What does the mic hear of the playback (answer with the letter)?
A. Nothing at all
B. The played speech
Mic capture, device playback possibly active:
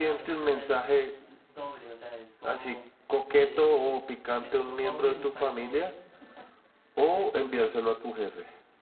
B